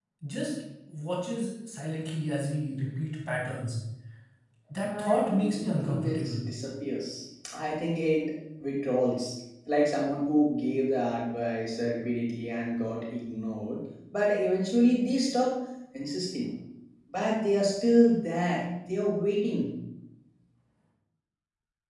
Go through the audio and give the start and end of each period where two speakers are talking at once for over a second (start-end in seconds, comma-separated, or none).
4.8-6.4